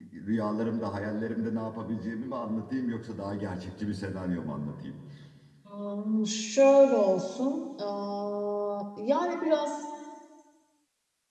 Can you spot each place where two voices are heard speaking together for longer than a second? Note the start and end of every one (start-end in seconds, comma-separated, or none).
none